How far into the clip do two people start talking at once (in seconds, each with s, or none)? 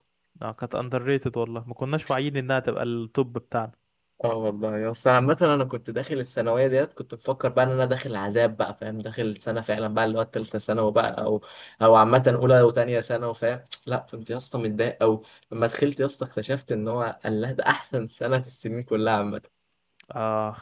none